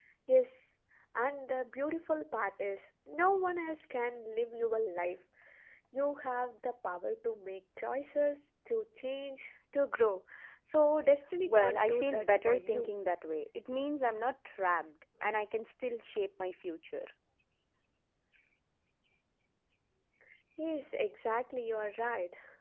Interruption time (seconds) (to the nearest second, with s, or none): 11 s